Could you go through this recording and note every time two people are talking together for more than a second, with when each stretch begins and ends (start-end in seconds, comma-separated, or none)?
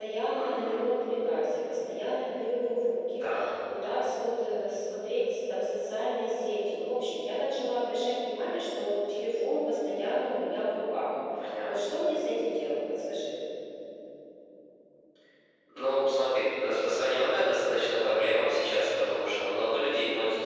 none